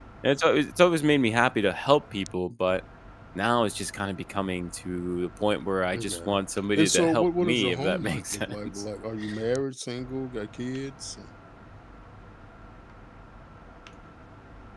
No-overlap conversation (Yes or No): No